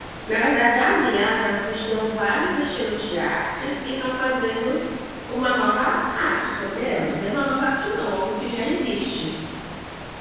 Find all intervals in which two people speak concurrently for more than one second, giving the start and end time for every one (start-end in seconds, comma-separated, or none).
none